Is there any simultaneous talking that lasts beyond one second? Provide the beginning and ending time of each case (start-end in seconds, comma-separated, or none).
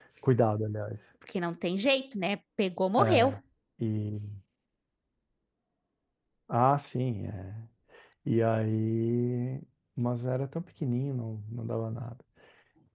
none